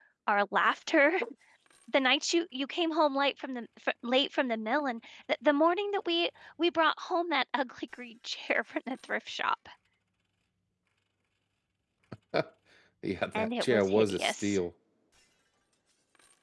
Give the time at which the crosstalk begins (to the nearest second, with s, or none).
13 s